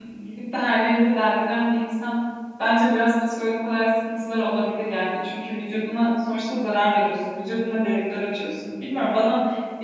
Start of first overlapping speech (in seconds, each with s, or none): none